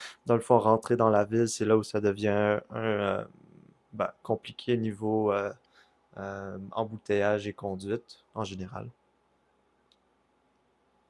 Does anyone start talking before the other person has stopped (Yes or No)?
No